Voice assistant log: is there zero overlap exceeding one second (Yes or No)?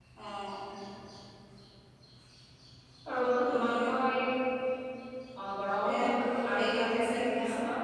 No